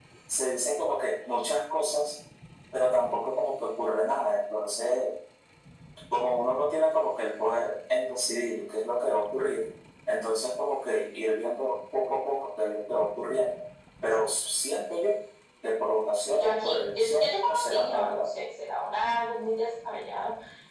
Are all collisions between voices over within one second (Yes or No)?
No